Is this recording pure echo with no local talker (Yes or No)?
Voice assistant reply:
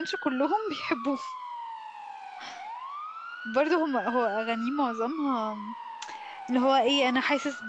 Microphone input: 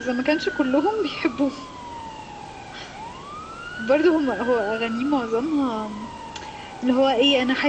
Yes